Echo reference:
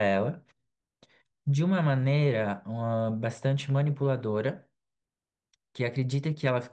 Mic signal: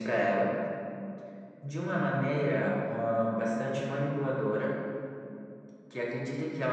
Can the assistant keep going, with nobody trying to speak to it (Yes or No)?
Yes